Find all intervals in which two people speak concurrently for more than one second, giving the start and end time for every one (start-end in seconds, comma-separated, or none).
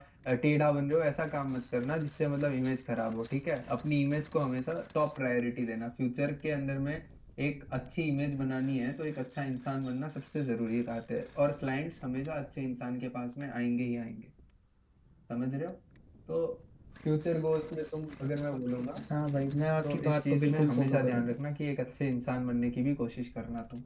19.9-21.3